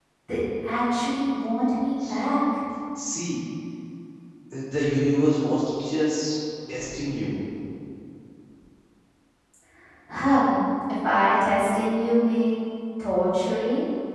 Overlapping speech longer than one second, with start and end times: none

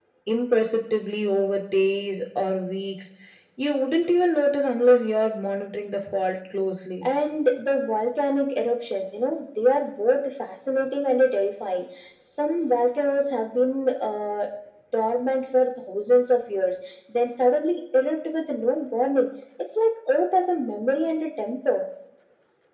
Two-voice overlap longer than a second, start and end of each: none

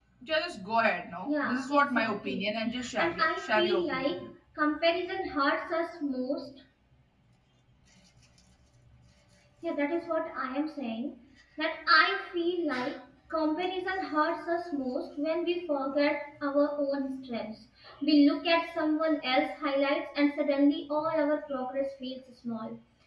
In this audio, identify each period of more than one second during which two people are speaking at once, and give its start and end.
1.2-4.1

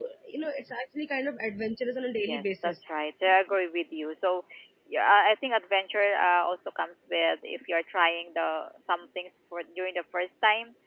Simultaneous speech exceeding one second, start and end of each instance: none

